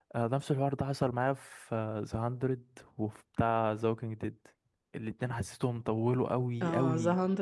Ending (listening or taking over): taking over